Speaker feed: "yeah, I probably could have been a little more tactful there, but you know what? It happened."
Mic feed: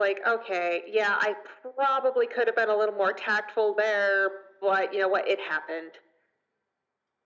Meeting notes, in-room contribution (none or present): none